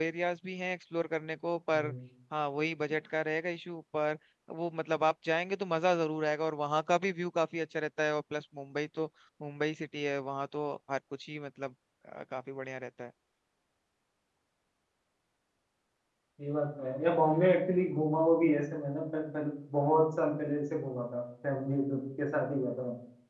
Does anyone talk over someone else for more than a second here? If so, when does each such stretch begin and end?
none

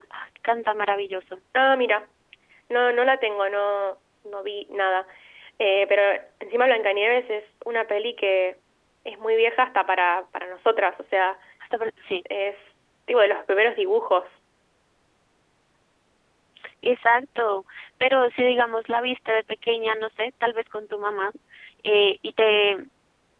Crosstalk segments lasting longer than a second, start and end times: none

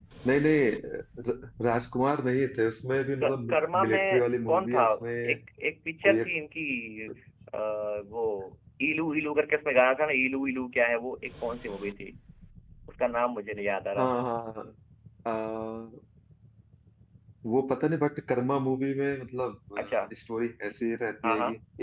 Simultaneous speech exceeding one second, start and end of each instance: 3.2-4.8

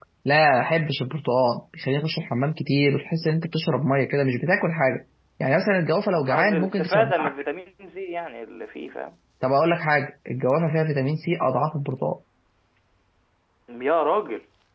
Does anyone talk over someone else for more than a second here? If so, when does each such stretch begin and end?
6.0-7.3

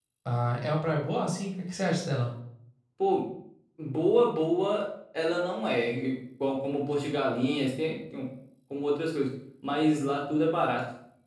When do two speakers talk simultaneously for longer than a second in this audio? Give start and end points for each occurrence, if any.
none

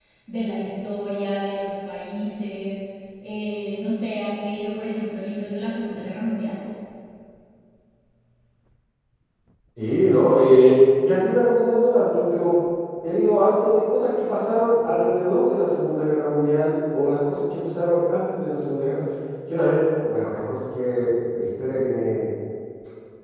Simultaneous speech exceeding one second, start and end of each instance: none

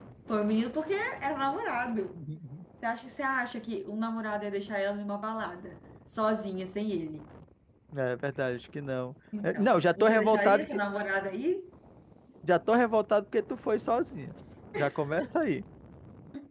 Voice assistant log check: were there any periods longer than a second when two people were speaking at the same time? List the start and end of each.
9.4-10.8

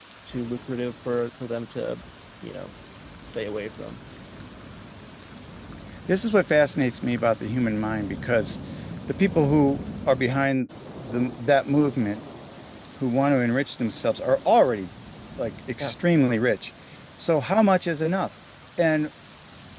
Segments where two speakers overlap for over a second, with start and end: none

